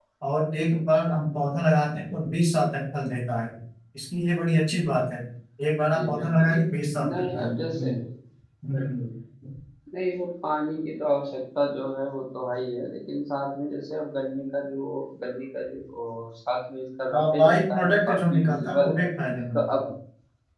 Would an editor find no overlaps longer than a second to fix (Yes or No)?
No